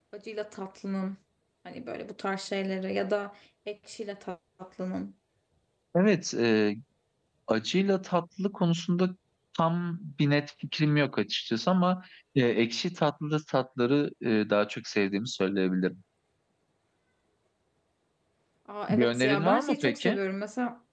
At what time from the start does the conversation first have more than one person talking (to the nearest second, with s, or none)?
19 s